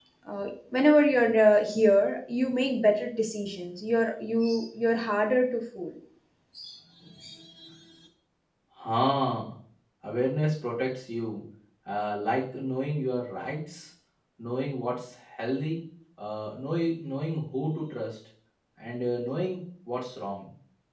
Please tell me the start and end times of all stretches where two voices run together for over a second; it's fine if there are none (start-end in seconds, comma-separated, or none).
none